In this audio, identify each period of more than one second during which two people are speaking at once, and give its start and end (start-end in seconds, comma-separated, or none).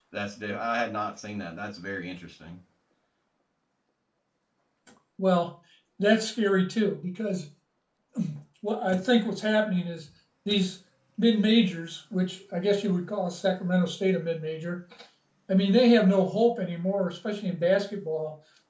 none